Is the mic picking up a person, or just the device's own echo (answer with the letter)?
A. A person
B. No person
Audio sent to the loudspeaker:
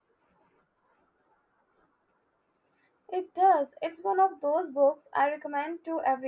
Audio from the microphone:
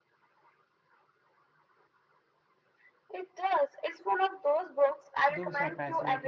A